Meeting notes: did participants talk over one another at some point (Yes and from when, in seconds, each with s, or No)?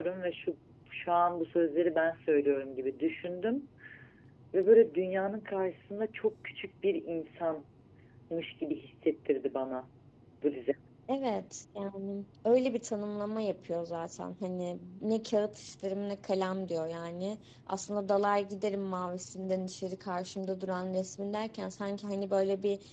No